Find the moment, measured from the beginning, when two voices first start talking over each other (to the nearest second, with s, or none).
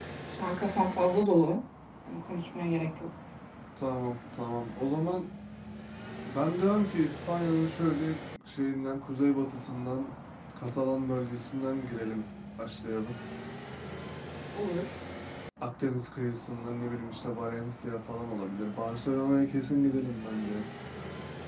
none